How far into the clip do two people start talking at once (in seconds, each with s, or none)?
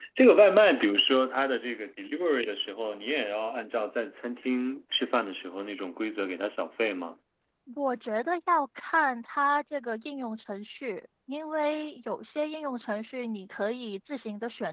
none